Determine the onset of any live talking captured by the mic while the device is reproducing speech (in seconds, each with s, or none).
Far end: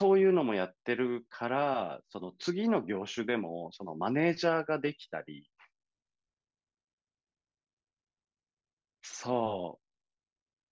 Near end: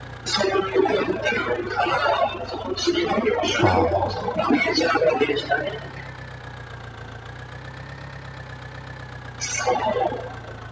3.6 s